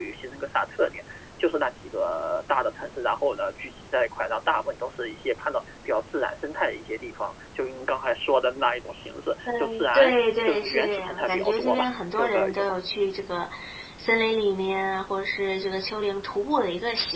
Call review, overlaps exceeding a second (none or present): present